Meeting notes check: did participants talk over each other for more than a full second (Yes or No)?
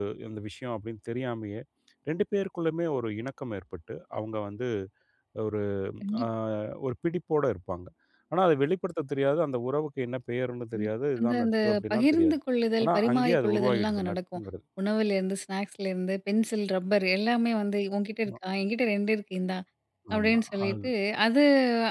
Yes